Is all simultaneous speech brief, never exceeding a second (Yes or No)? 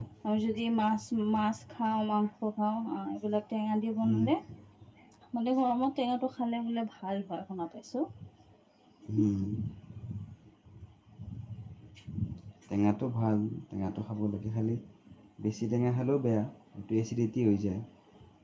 Yes